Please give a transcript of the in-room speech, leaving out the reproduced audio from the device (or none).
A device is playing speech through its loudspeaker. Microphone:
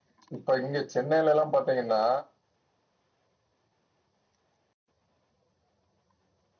இப்ப இங்க சென்னையிலலா பாத்தீங்கன்னா